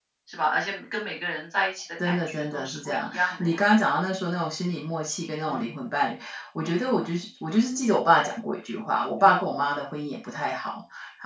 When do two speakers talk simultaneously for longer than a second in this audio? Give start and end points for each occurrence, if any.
2.0-3.6

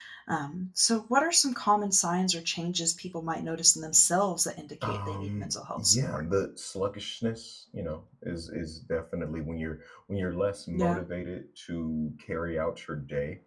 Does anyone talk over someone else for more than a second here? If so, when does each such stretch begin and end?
4.8-6.2

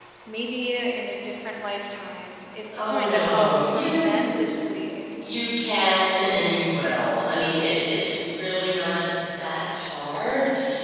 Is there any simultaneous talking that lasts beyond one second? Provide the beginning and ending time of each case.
2.8-4.1

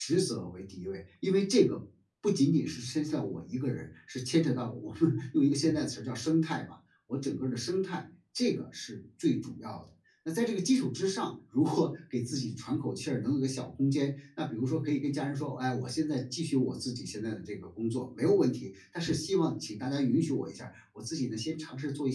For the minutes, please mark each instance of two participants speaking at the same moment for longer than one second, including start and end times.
none

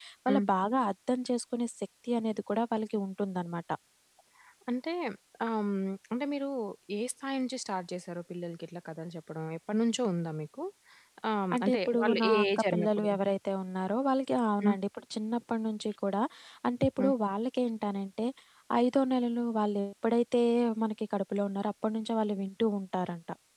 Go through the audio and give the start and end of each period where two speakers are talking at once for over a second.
11.6-13.1

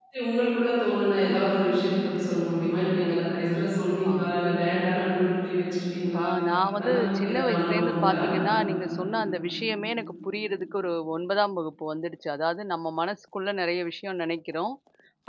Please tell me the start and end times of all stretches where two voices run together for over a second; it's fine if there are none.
6.8-8.2

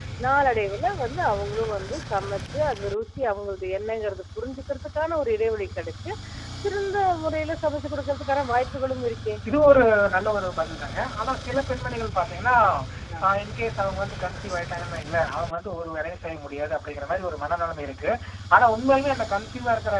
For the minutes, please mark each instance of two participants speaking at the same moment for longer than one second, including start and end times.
none

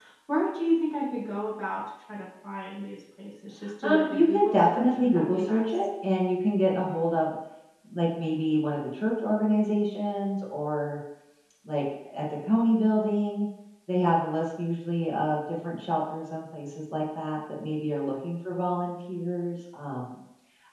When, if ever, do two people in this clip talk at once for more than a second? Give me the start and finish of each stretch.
3.8-5.9

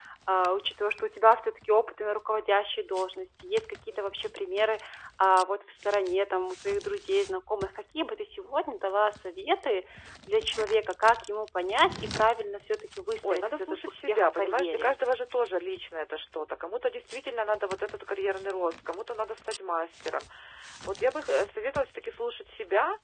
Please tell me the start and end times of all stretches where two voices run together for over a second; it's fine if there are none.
13.3-14.9

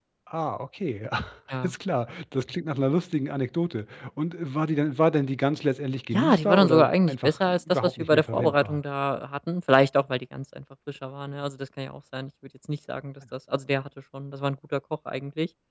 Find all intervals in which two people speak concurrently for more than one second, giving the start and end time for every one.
6.1-8.8

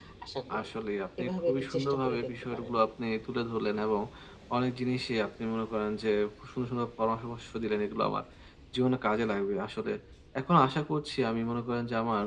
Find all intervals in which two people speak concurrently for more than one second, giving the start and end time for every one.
1.2-2.7

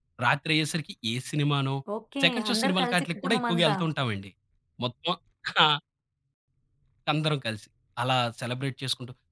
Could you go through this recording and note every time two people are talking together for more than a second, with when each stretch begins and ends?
2.2-3.8

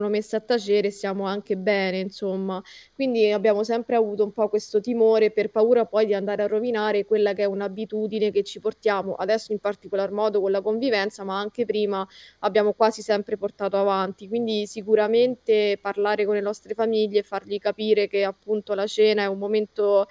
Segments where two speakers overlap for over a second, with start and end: none

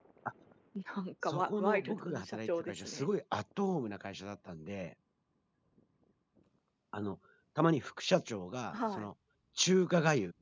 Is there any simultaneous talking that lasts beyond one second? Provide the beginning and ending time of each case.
1.2-3.1

